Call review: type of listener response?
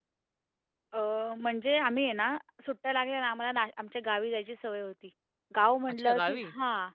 listening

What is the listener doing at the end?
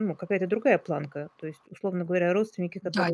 listening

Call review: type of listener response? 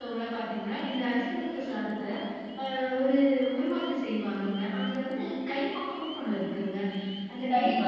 listening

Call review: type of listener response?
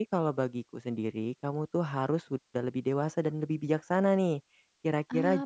listening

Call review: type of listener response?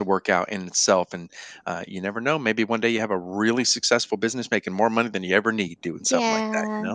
taking over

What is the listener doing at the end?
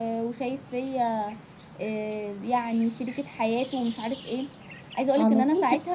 taking over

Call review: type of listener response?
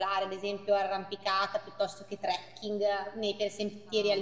taking over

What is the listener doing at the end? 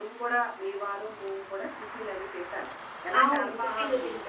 taking over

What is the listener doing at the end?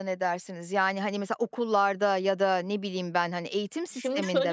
taking over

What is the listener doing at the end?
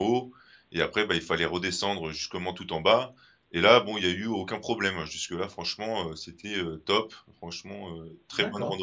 taking over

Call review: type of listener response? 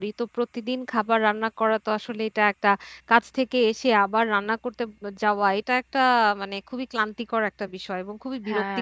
listening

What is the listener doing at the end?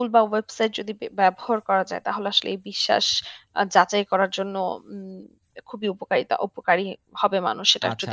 taking over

